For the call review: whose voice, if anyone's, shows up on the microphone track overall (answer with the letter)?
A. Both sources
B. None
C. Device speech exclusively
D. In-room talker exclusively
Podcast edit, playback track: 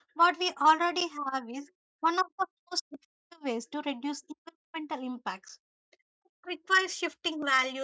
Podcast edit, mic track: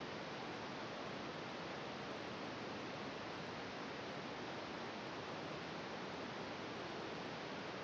B